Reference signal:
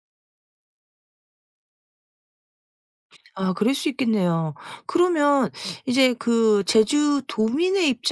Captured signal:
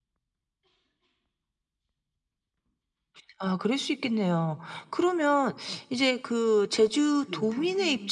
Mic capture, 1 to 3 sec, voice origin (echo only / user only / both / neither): neither